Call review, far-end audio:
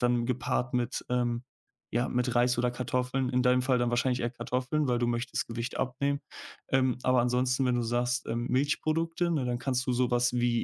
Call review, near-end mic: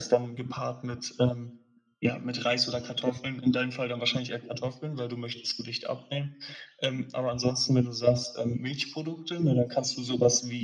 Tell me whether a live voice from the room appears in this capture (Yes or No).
No